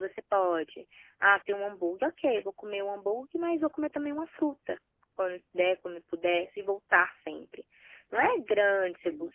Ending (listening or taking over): listening